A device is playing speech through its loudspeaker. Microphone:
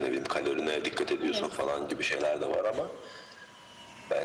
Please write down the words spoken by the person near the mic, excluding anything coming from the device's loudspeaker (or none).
Evet.